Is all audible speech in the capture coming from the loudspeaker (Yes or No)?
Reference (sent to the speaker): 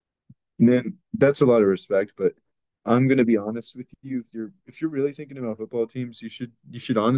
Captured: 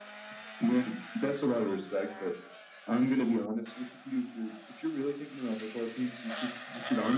Yes